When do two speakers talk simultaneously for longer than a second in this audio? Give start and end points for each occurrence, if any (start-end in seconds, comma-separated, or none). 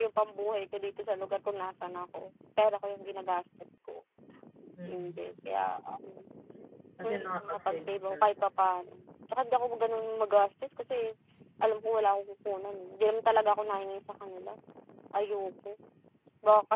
7.0-8.3